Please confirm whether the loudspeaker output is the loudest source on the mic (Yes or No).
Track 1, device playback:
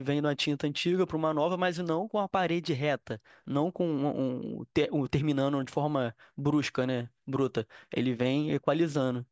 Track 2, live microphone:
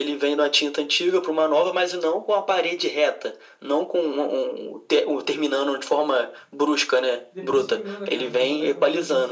Yes